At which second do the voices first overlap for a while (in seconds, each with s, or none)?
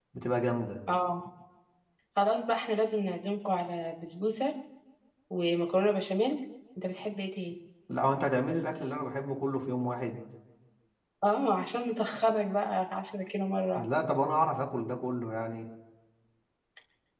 none